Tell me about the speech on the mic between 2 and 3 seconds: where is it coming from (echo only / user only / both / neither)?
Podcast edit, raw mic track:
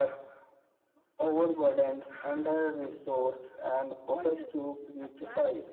echo only